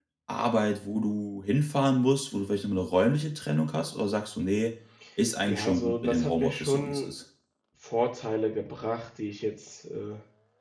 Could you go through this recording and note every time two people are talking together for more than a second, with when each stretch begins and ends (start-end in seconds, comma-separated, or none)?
5.5-7.1